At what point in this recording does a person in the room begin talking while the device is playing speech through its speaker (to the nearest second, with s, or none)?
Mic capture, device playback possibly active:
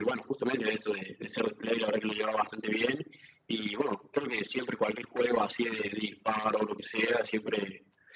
none